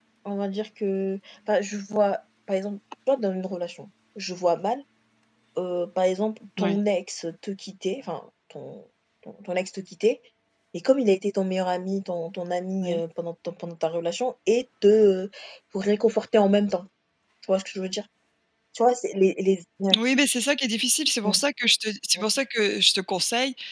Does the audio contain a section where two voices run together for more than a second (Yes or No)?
No